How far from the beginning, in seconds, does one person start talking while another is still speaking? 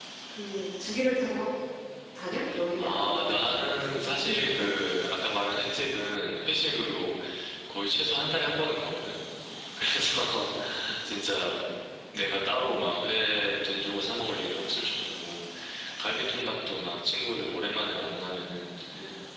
2.8 s

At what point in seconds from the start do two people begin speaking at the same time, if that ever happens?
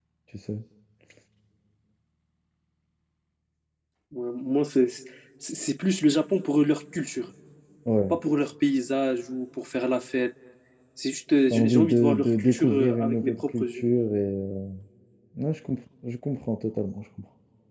11.5 s

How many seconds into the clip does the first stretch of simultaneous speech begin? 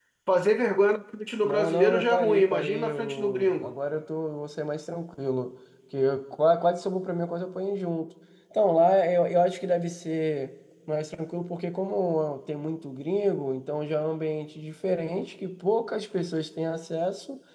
1.4 s

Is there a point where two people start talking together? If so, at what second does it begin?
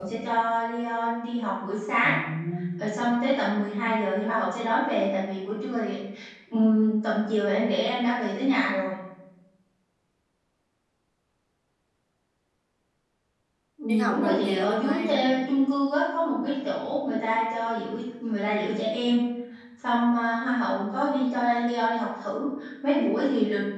13.9 s

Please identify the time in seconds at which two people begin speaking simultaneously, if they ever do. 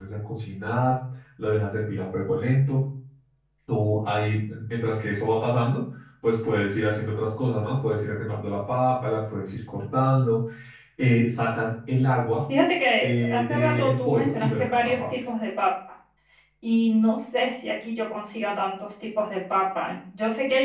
13.0 s

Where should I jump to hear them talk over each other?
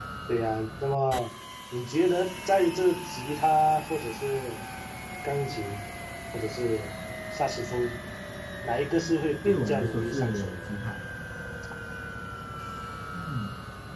9.4 s

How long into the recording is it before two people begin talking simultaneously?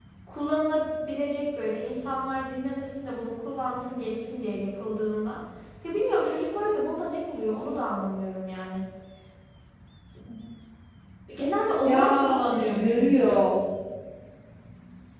11.8 s

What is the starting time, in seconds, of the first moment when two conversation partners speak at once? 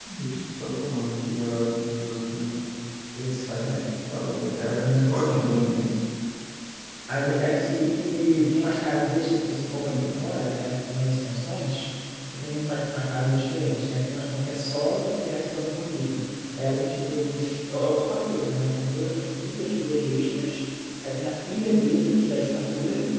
4.6 s

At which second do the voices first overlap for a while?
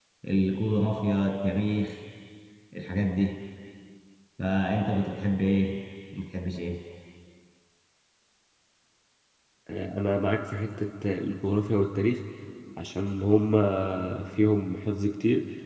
none

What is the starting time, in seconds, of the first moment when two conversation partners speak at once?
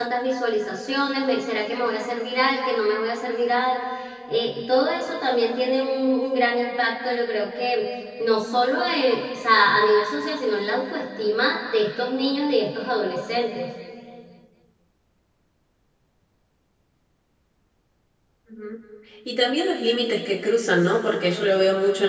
none

